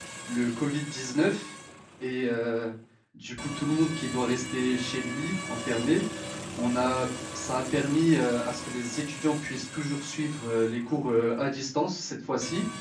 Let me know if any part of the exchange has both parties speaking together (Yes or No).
No